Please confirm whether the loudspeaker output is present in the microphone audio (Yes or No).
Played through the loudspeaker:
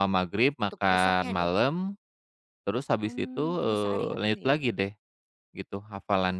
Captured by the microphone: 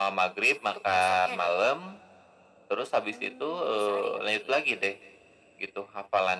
Yes